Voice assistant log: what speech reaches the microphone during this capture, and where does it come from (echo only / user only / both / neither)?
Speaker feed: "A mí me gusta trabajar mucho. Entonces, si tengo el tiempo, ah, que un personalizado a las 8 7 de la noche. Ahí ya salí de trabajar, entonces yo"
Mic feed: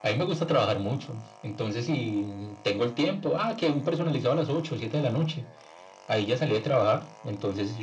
echo only